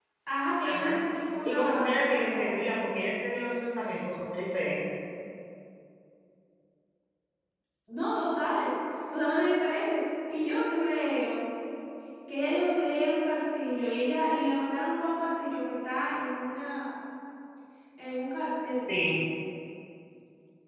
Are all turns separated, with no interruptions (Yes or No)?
No